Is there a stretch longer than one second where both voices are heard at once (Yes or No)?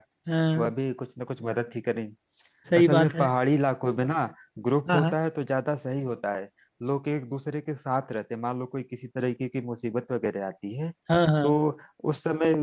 No